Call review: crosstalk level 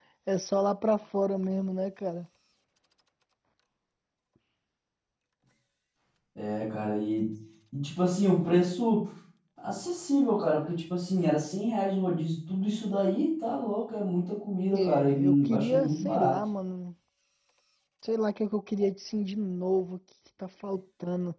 present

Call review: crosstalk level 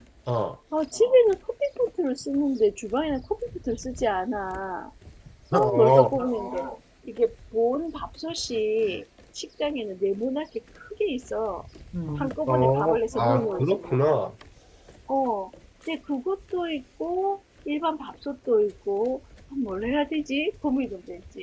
present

